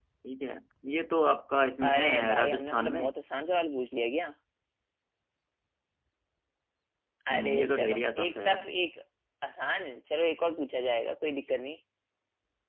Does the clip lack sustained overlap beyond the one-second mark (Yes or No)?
No